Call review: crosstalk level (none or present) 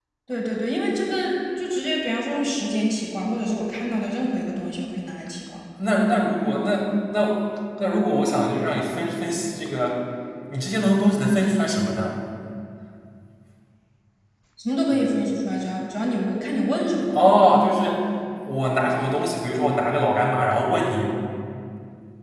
none